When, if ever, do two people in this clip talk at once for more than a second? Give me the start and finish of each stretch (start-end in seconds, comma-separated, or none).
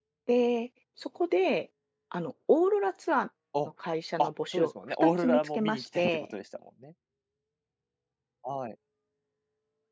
4.2-6.3